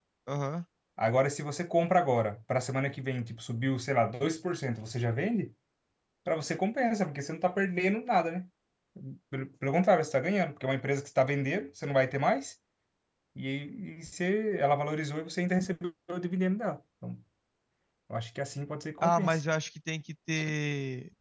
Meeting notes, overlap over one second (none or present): none